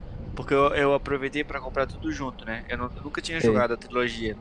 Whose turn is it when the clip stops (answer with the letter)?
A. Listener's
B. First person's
B